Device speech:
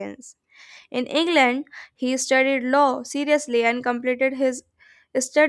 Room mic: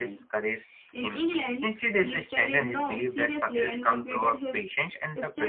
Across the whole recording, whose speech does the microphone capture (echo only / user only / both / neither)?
both